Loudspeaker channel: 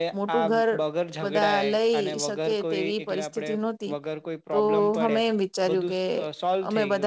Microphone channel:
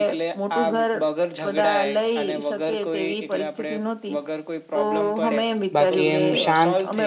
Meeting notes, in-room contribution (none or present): present